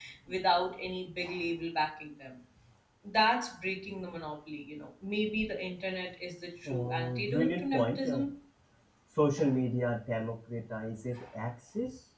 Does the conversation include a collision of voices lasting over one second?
Yes, from 6.7 s

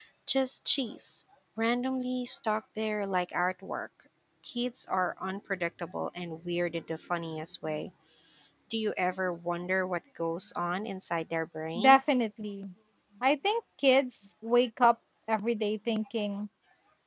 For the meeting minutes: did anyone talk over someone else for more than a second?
No

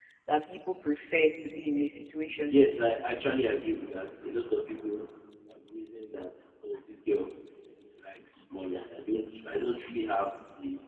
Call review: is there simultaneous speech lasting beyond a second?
No

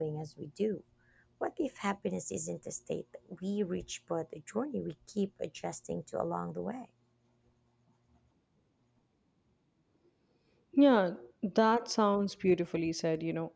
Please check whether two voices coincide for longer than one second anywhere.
No

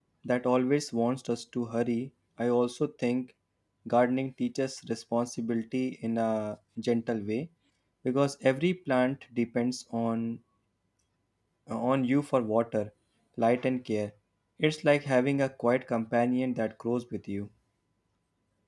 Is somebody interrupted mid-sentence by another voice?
No

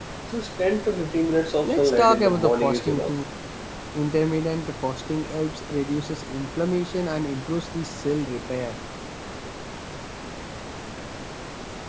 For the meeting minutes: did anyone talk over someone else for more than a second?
Yes, from 1.6 s

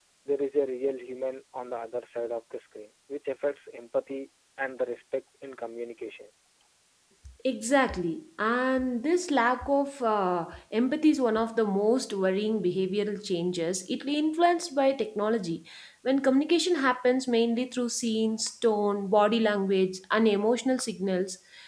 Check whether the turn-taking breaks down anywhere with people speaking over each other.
No

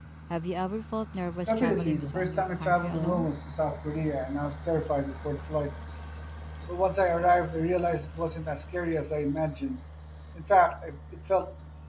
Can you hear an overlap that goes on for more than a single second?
Yes, from 1.5 s

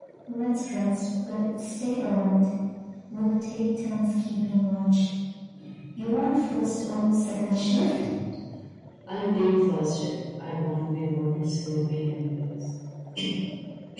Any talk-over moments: No

